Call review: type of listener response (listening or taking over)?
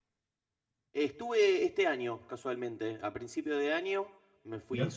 listening